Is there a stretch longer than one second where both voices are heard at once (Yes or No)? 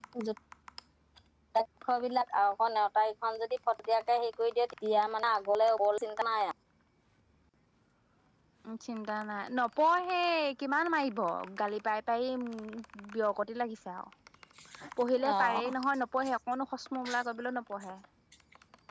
No